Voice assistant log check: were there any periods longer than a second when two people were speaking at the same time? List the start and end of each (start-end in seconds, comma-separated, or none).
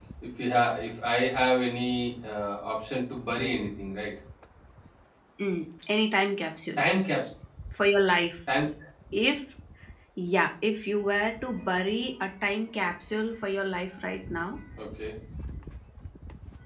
none